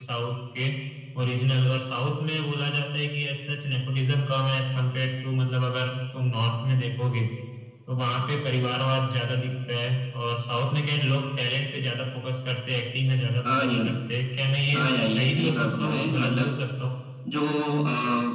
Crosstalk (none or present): present